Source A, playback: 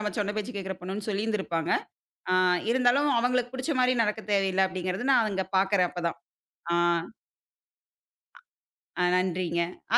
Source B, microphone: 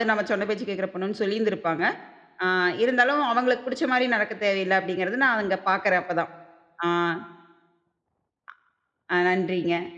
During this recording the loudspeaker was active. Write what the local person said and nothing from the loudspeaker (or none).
none